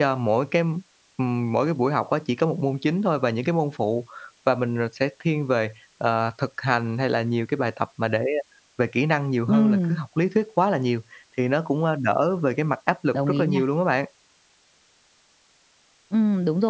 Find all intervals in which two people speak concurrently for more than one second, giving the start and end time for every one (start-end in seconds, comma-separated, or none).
none